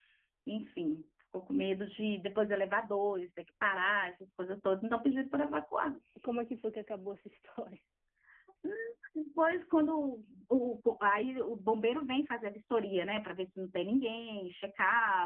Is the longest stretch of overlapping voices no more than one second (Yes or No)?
Yes